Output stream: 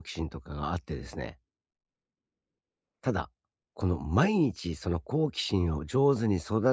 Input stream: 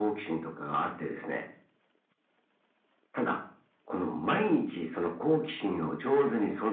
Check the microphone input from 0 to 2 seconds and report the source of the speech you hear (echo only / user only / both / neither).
echo only